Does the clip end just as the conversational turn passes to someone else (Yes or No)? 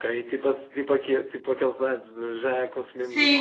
Yes